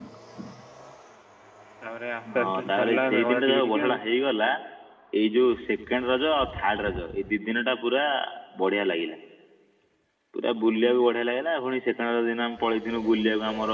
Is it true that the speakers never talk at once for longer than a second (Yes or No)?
No